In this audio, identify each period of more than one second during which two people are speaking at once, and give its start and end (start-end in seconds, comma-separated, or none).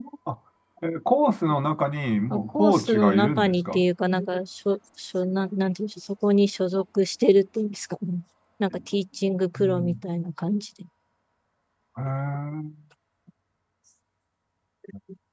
2.3-3.8